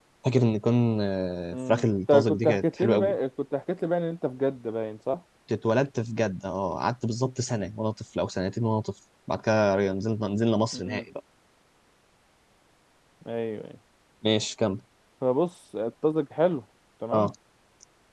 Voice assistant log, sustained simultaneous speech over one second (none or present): present